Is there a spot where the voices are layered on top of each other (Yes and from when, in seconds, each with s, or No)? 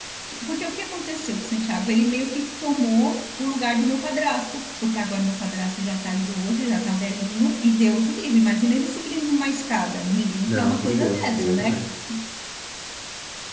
Yes, from 10.5 s